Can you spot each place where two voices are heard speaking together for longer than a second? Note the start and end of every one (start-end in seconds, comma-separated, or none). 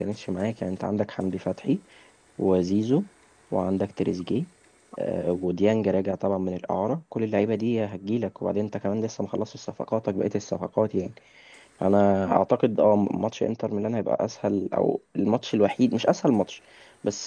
none